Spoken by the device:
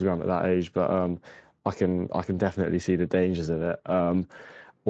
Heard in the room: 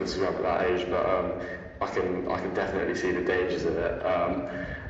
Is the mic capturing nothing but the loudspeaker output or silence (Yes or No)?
Yes